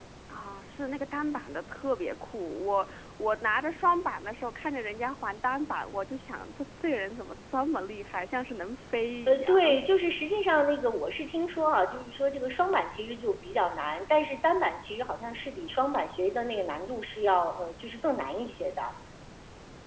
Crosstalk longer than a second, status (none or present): none